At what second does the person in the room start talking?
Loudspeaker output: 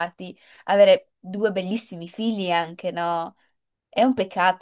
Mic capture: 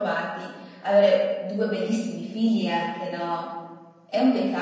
none

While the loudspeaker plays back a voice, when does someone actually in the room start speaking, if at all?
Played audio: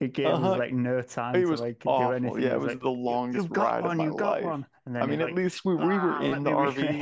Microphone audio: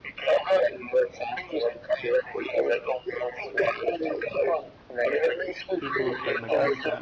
6 s

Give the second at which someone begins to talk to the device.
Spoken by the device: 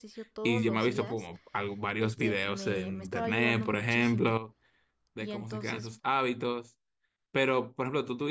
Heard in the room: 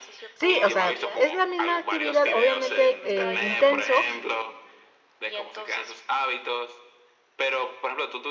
0 s

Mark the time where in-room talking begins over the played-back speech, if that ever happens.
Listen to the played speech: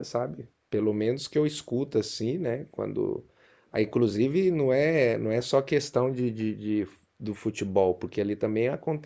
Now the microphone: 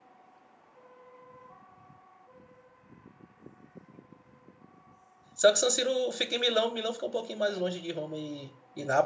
5 s

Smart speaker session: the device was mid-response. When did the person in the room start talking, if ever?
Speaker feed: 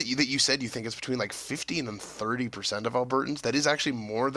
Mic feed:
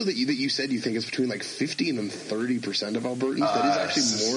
3 s

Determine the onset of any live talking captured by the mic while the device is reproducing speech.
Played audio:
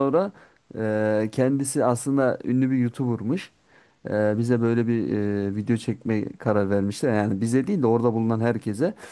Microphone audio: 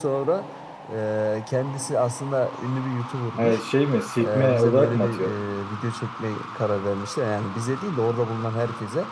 3 s

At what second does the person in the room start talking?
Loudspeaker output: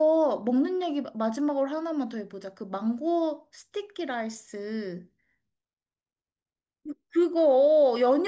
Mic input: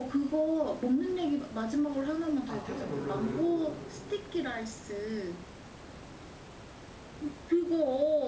2 s

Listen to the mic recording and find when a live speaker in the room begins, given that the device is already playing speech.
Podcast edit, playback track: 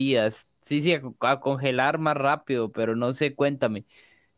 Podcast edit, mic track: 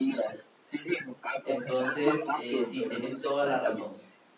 1 s

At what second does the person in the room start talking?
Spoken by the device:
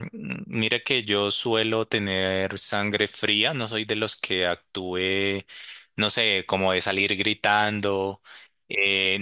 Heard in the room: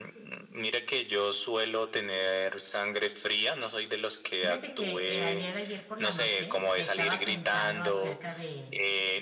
4 s

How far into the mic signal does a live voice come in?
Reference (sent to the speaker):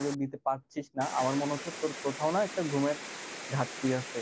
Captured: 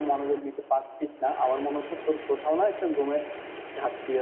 none

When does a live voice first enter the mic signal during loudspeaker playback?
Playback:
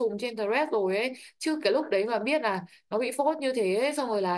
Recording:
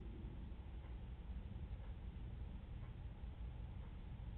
none

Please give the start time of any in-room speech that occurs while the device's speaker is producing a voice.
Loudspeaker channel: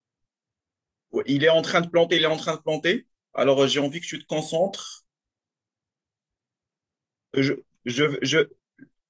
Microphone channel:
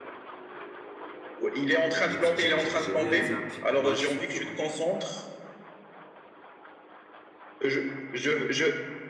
2 s

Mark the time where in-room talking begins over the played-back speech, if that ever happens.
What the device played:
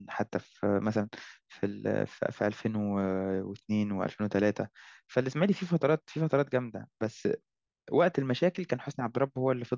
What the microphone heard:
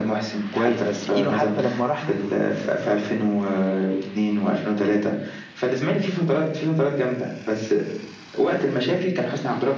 0 s

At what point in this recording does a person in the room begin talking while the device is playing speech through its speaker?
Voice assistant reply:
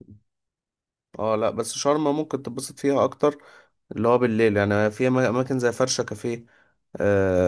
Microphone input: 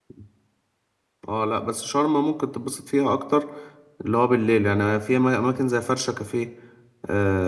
none

